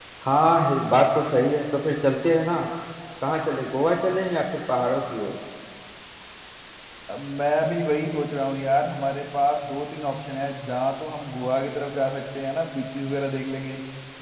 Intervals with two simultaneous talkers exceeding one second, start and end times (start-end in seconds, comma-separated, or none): none